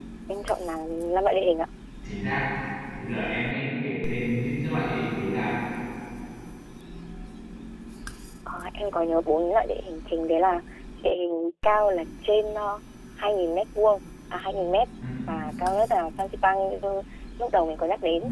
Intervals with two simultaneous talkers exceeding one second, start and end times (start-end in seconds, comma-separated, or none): none